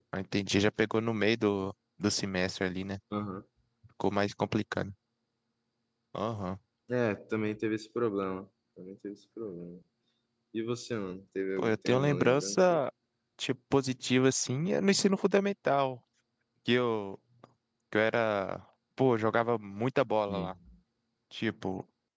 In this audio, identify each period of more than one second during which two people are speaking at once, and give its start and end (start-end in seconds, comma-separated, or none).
11.6-12.8